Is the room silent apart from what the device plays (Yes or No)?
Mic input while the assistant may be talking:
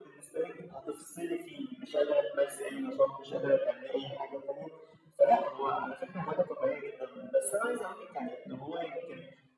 Yes